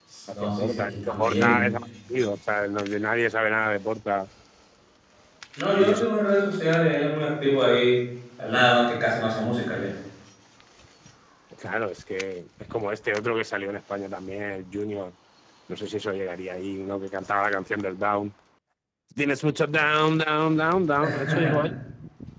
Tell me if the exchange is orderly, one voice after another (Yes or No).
No